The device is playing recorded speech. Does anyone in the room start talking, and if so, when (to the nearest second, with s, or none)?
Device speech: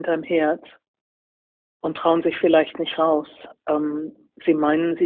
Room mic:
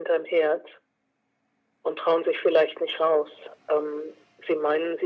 none